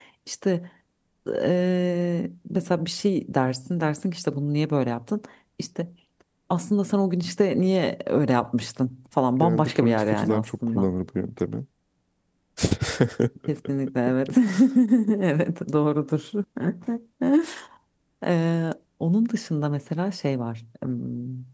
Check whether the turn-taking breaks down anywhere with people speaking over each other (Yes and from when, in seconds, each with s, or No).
Yes, from 9.4 s